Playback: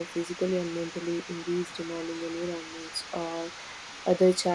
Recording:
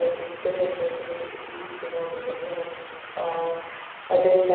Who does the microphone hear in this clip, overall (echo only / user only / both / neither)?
echo only